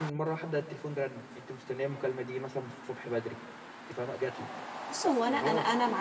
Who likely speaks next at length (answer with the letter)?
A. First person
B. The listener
B